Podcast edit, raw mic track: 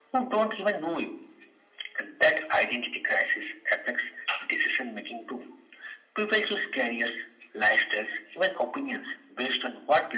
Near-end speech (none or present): none